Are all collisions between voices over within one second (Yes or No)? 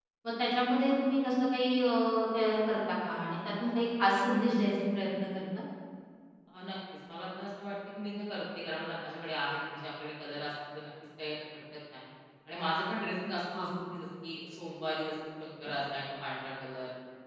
Yes